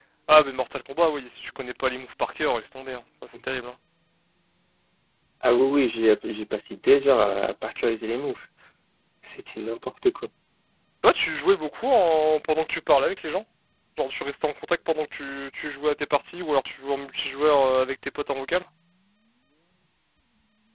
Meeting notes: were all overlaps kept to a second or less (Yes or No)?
Yes